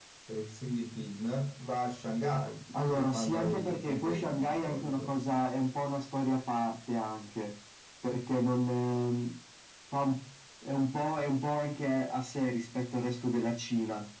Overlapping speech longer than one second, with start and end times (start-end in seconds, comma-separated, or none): 2.9-5.1